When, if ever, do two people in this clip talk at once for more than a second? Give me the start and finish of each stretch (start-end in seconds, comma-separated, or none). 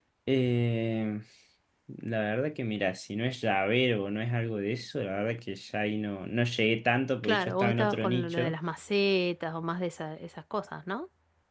7.2-8.6